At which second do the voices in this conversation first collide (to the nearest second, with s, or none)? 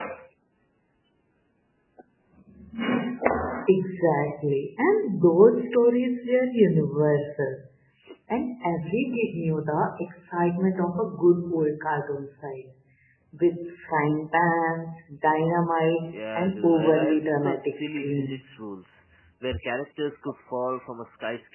16 s